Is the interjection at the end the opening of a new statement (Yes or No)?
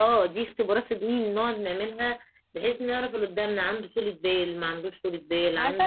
Yes